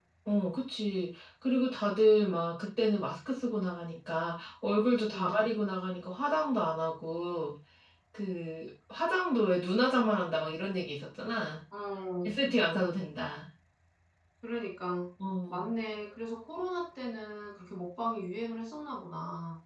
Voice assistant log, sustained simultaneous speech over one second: none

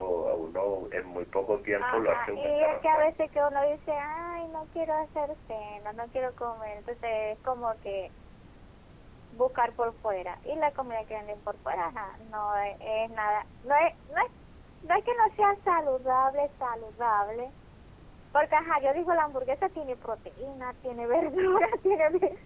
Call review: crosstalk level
present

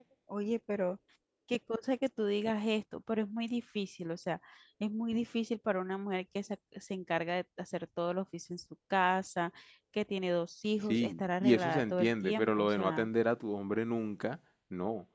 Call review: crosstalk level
present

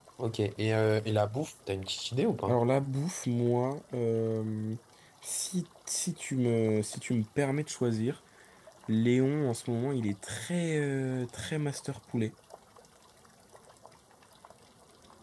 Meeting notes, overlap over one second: none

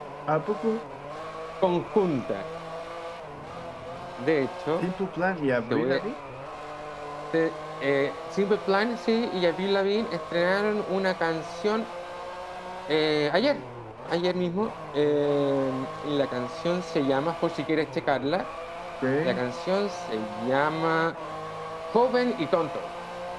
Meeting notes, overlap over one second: none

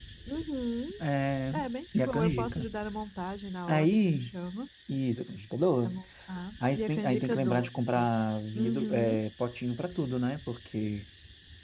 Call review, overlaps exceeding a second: present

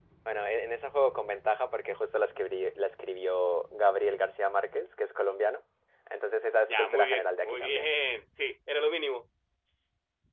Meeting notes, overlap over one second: present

